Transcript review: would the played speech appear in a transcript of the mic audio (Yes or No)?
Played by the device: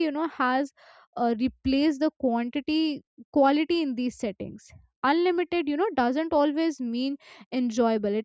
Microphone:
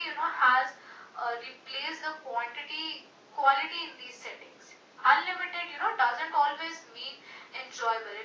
Yes